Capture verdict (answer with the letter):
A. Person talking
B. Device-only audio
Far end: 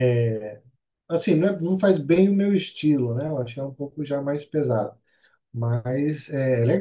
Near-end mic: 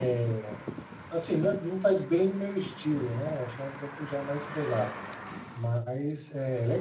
B